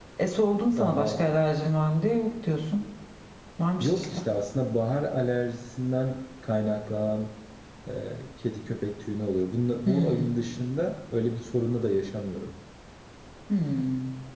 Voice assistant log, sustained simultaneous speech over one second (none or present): none